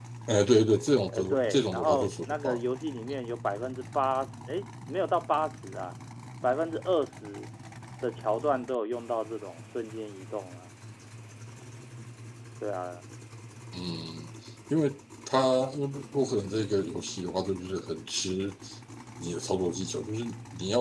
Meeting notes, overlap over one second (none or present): present